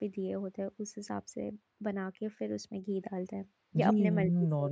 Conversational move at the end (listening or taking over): taking over